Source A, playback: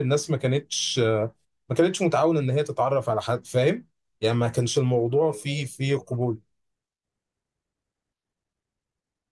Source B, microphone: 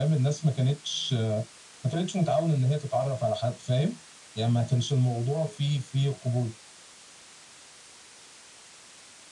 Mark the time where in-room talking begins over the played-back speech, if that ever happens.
none

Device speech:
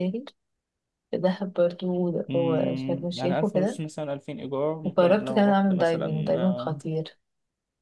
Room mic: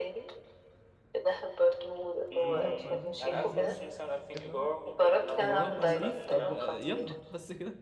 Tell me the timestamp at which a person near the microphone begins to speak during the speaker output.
2.3 s

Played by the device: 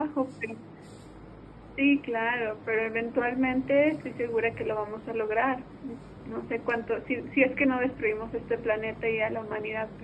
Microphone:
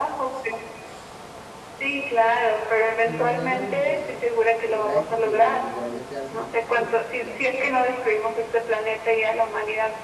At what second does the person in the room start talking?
3.0 s

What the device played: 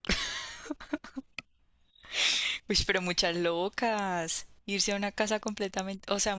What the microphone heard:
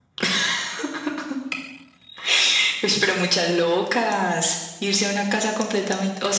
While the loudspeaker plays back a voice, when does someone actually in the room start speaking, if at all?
none

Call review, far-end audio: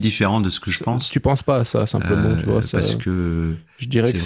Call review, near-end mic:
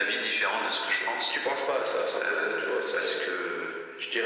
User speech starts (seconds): none

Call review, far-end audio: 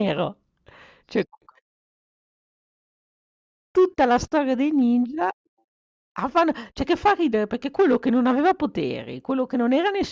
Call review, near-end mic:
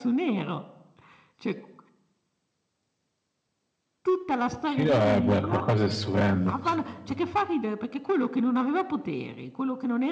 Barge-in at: 4.6 s

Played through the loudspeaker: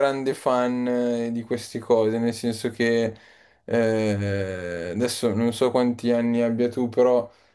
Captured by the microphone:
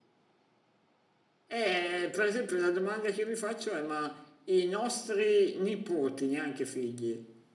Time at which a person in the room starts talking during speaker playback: 1.5 s

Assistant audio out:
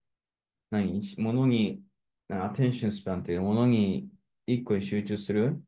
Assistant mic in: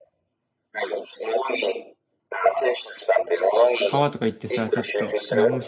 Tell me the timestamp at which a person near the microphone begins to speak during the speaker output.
3.8 s

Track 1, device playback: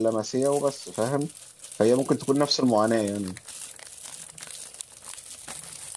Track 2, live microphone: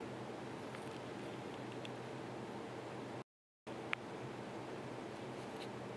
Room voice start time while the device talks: none

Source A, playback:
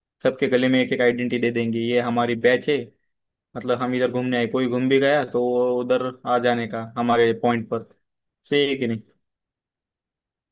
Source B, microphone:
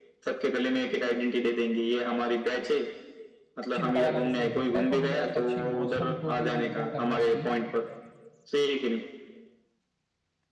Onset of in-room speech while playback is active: 3.7 s

